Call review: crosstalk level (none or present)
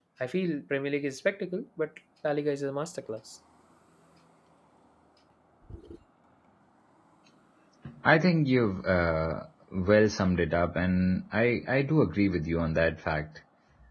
none